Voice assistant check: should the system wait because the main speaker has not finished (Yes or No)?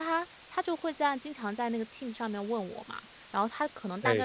Yes